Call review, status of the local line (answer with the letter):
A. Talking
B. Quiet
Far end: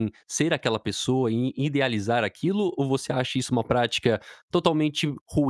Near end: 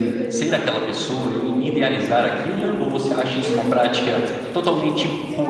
A